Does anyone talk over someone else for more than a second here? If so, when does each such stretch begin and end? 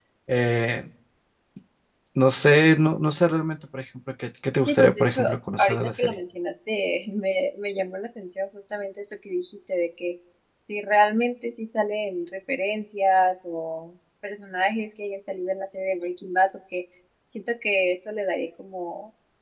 4.7-6.2

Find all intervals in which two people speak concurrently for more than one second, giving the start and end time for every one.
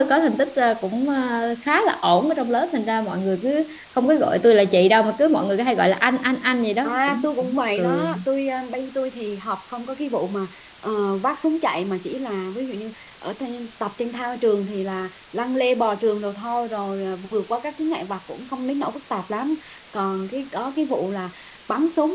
6.8-8.1

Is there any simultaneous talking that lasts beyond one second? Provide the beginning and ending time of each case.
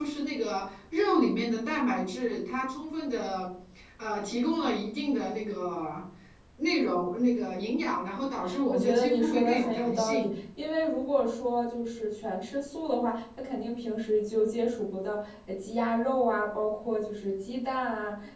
8.7-10.3

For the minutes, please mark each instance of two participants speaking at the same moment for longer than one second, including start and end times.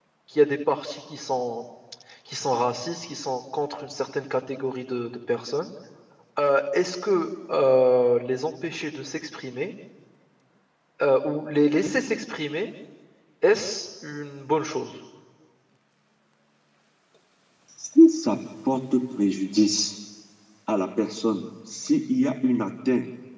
none

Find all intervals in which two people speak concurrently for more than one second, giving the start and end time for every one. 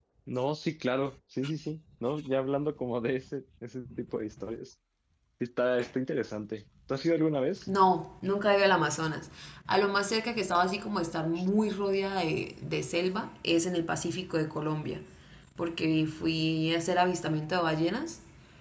none

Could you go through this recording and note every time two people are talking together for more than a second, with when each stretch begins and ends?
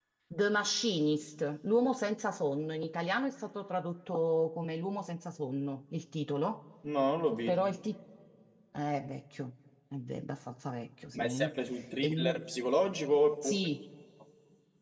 none

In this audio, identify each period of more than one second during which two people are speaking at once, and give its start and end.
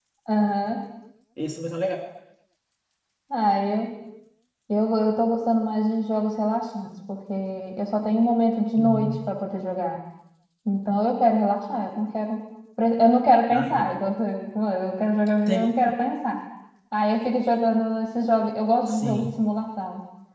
none

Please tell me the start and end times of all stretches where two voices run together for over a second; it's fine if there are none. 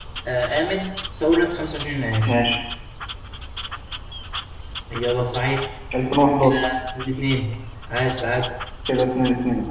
none

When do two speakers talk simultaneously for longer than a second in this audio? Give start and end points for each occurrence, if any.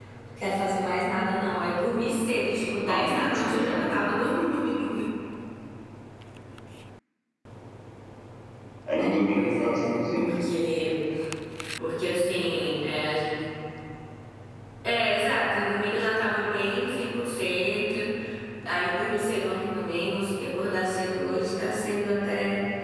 2.8-4.1, 9.0-10.3

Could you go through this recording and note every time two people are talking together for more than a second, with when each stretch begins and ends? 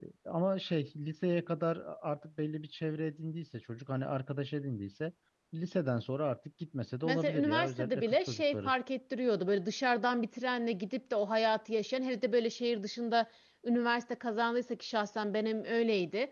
7.0-8.7

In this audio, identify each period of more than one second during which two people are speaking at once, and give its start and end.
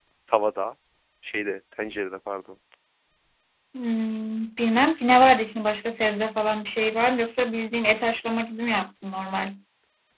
none

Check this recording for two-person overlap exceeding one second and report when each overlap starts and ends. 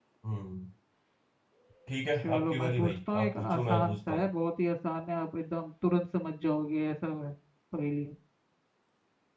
2.2-4.3

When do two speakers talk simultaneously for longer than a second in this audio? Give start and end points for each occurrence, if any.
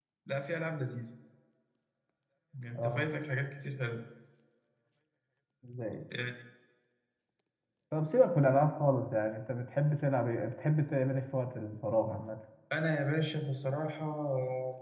none

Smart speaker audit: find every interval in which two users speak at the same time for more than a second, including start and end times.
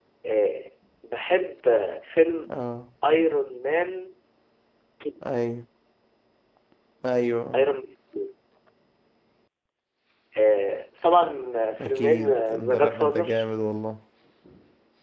11.8-13.4

